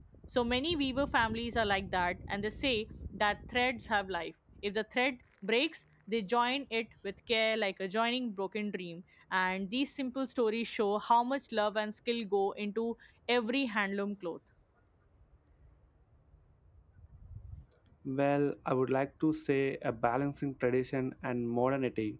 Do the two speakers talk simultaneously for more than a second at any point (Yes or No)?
No